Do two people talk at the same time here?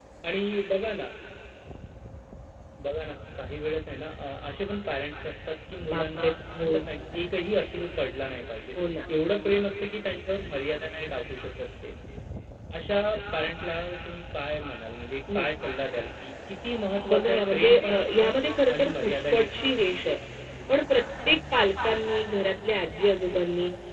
Yes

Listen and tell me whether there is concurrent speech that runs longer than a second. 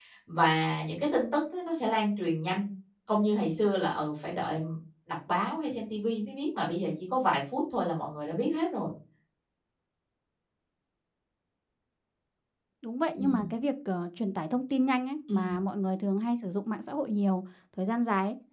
No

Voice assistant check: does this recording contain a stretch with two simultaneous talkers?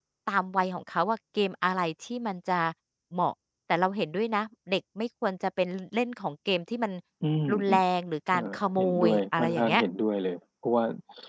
Yes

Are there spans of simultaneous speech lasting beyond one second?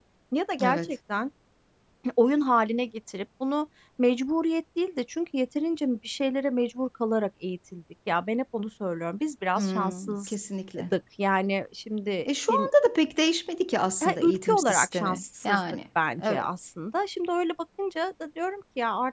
Yes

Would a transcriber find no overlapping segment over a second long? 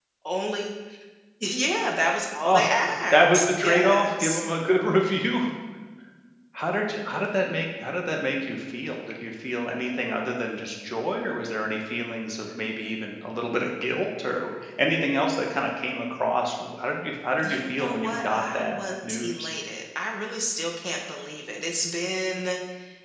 No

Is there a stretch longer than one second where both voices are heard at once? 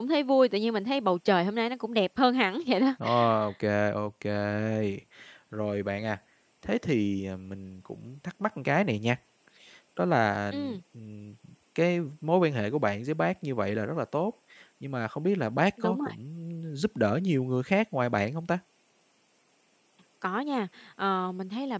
No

